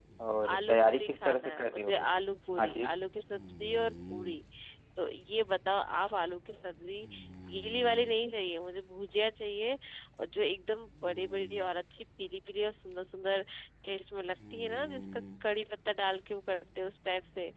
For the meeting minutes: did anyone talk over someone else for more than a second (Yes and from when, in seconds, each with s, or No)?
Yes, from 0.5 s